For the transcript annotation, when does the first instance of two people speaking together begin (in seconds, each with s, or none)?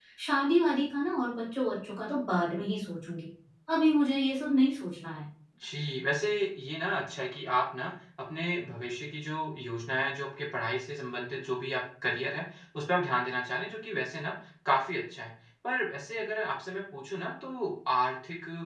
none